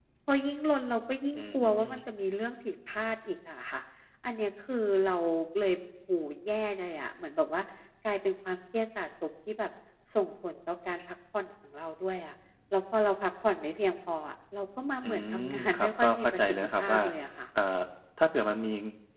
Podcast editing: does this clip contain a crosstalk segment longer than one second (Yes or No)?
Yes